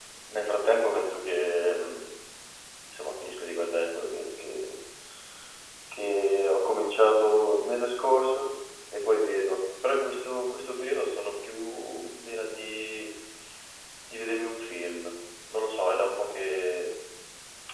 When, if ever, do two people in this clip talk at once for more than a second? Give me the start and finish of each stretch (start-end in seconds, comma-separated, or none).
none